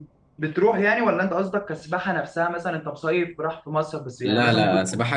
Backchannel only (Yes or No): No